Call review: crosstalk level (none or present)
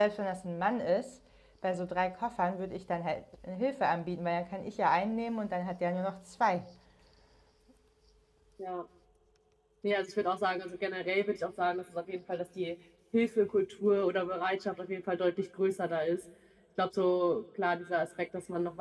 none